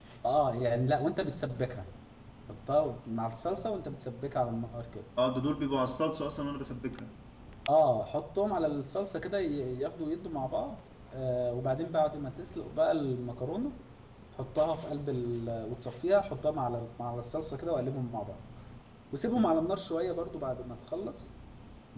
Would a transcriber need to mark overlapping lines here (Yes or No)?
No